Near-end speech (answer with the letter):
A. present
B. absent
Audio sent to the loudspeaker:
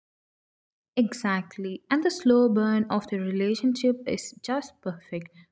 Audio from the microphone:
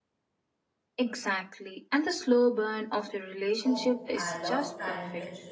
A